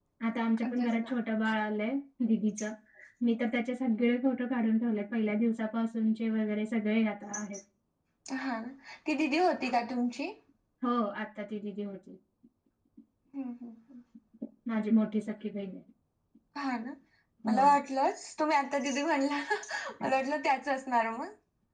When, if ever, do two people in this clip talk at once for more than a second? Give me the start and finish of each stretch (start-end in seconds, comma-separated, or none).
none